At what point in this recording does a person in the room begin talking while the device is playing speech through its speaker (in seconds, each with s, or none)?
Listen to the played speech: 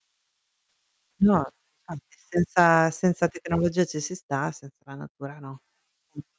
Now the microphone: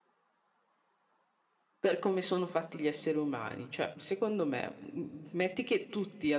1.8 s